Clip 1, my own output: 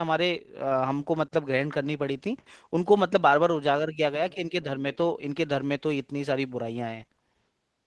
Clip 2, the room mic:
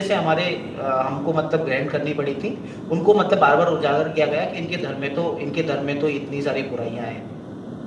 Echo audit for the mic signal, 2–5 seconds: echo only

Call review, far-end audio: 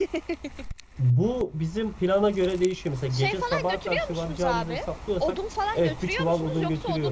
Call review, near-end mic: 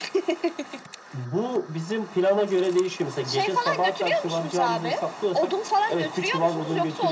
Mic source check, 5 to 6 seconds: echo only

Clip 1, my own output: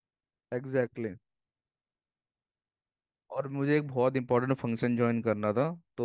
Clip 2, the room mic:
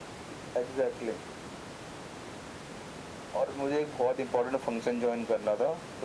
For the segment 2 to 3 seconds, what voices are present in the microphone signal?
neither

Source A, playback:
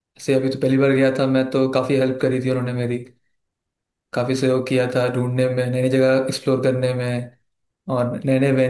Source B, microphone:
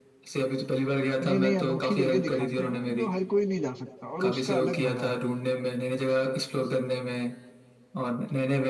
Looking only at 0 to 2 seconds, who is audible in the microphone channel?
both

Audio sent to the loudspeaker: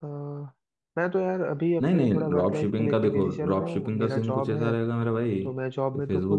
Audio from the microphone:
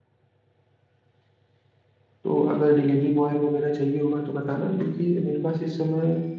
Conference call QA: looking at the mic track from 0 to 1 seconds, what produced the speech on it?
neither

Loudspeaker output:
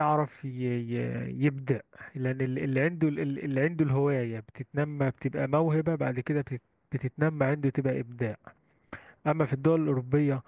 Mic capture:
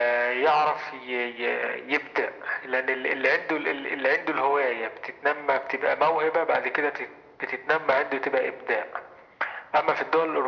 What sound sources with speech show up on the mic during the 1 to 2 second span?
echo only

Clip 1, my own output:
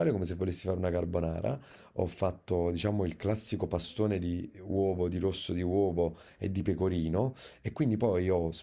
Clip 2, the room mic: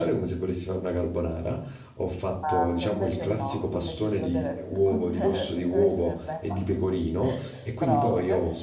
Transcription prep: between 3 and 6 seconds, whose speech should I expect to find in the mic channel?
both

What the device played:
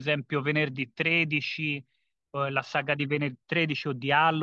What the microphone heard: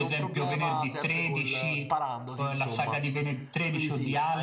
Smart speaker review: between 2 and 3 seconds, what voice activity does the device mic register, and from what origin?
both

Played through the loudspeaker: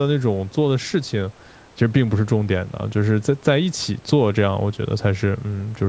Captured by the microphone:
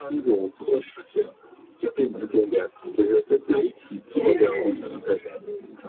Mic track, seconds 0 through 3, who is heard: echo only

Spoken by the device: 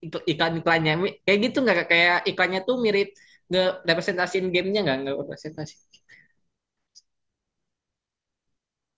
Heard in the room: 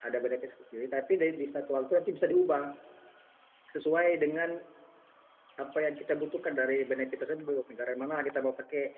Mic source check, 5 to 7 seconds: user only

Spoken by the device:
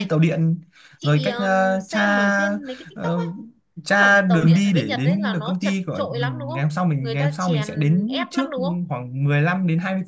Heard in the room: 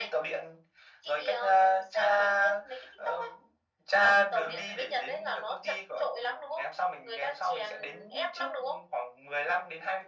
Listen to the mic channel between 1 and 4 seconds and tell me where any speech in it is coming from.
echo only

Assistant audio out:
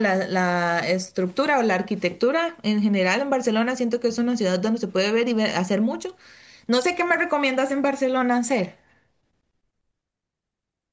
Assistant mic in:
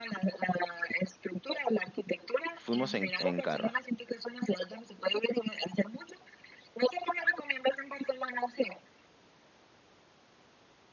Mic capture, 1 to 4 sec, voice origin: both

